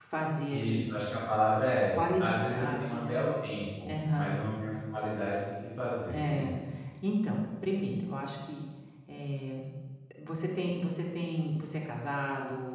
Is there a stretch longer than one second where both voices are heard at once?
Yes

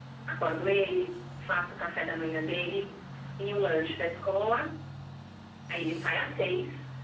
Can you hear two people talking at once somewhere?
No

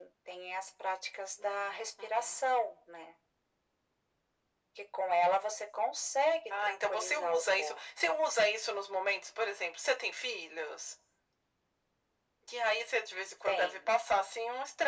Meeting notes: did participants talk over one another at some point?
Yes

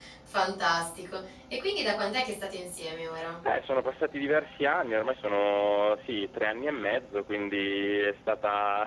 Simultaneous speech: No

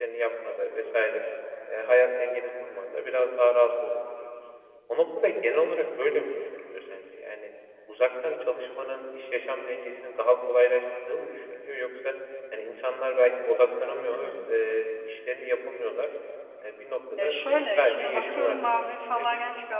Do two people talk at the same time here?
Yes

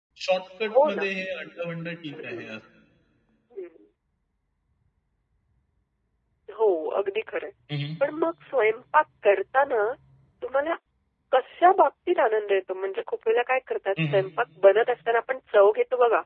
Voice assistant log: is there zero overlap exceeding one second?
Yes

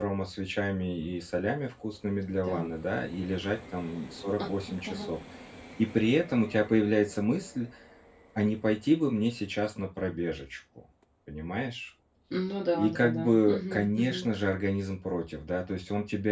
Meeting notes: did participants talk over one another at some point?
Yes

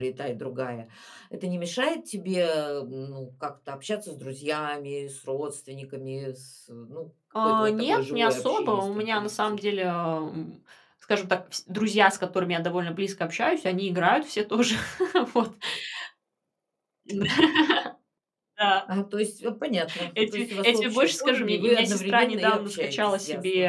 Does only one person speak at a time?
No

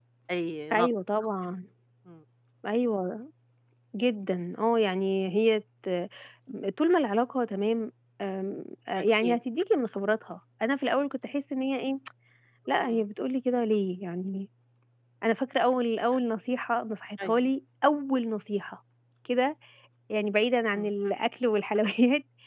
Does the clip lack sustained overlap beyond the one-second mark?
Yes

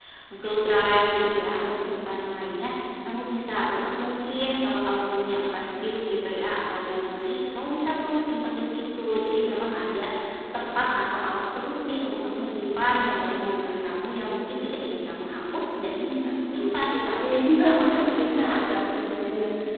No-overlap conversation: No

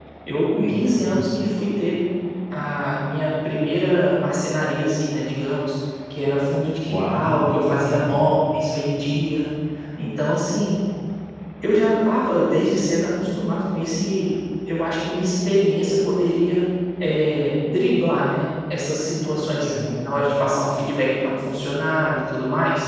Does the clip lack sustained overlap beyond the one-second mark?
No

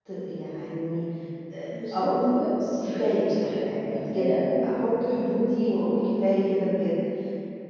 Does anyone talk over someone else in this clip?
Yes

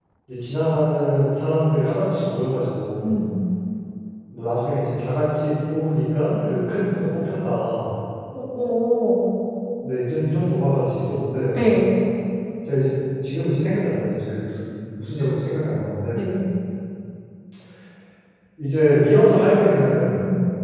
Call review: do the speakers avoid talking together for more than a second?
Yes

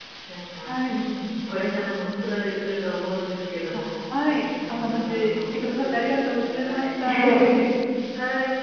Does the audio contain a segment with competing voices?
Yes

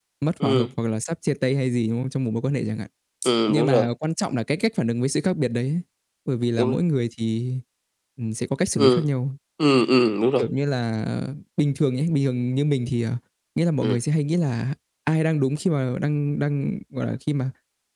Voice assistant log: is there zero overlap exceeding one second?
Yes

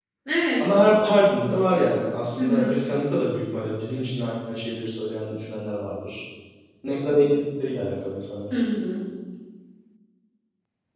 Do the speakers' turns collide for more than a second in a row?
No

